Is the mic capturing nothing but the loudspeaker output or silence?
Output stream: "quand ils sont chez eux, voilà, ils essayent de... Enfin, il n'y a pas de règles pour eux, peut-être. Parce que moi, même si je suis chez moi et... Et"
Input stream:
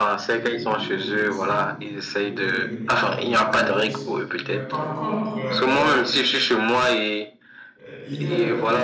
No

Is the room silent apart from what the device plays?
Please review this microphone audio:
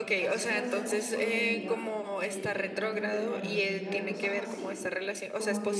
No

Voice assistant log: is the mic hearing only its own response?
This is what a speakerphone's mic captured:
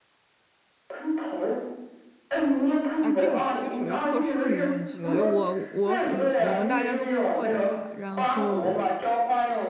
No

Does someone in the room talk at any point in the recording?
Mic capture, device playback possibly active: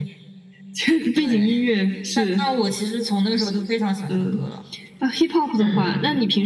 Yes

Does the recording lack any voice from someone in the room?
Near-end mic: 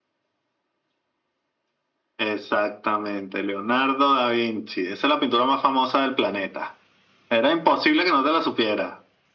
Yes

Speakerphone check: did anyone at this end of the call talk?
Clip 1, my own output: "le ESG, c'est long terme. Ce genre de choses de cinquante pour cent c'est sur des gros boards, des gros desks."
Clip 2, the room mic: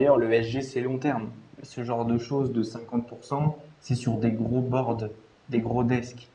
No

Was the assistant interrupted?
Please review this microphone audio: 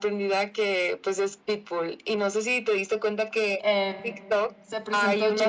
Yes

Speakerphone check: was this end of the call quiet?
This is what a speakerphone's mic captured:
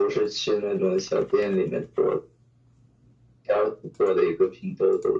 Yes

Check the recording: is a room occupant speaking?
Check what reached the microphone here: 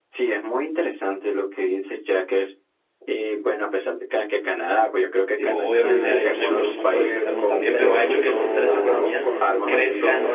Yes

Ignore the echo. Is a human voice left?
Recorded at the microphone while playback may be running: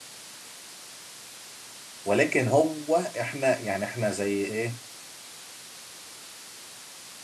Yes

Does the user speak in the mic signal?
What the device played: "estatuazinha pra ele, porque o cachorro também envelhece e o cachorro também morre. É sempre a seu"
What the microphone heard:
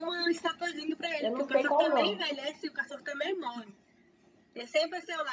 Yes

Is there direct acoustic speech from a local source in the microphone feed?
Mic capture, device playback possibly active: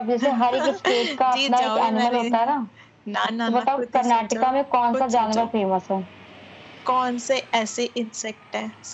No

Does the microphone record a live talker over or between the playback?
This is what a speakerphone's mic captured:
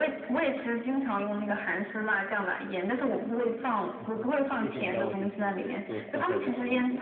Yes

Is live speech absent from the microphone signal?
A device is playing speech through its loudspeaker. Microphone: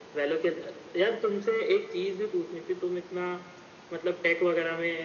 Yes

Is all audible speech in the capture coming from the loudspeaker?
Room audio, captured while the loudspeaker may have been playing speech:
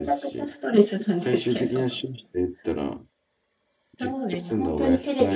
No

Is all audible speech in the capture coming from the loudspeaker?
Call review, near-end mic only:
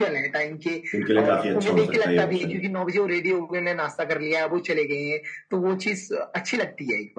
No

